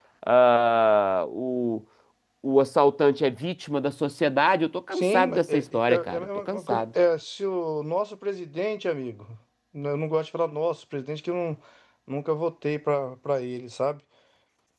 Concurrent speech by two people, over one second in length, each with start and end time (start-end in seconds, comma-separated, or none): 4.9-6.8